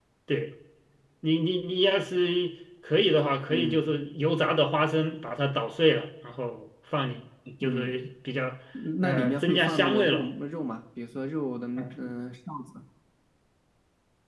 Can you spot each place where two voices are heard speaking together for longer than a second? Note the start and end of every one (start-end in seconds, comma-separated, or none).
9.0-10.2